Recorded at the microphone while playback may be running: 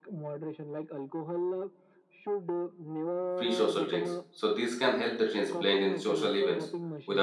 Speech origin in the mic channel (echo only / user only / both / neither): both